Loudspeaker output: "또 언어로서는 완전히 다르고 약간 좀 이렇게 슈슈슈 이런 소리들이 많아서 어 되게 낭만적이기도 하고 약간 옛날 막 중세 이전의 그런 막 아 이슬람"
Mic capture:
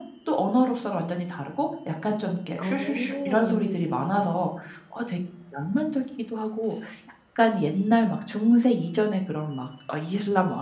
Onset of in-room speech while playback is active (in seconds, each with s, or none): 2.6 s